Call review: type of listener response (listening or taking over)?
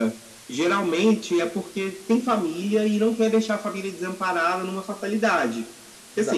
taking over